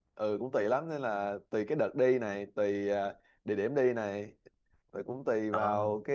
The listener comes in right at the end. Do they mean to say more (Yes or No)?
No